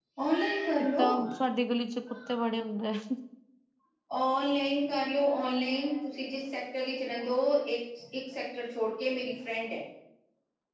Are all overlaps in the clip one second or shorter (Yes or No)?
Yes